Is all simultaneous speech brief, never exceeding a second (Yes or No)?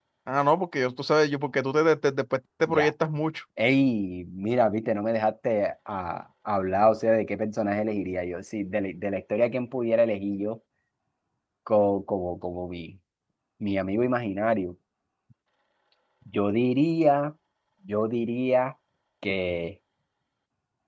Yes